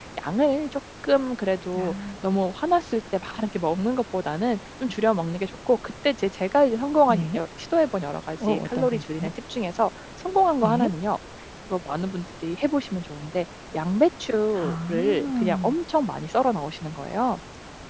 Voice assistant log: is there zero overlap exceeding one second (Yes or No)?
No